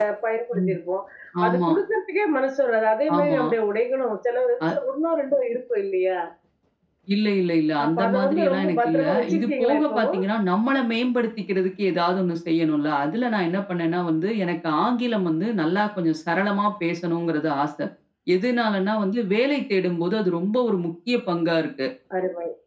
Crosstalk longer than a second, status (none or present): present